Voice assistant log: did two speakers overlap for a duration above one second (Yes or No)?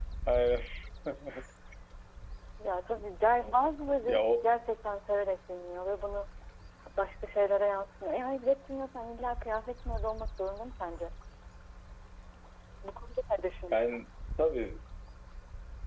No